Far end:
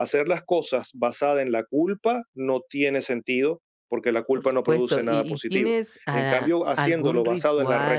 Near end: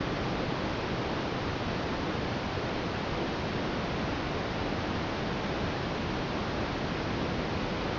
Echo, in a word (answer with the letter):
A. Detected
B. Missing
B